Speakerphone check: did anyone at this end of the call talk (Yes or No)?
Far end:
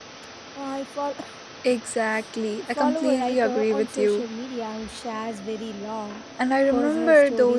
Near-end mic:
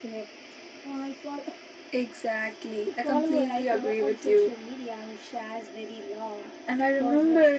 No